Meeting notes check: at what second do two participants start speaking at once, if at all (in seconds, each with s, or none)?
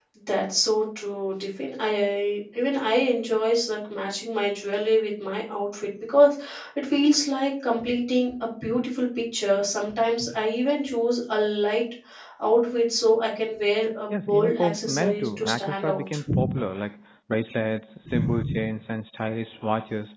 14.1 s